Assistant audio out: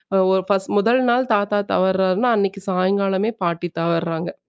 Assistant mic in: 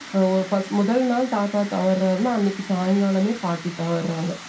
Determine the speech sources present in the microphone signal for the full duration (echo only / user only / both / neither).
echo only